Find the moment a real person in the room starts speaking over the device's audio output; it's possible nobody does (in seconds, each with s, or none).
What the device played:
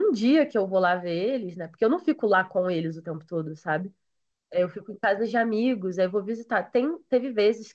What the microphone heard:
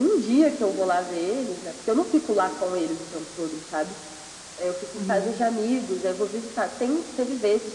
5.0 s